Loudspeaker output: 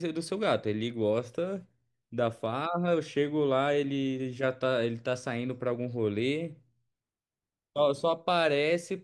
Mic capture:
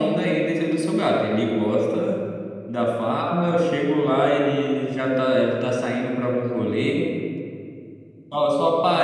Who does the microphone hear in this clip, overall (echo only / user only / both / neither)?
echo only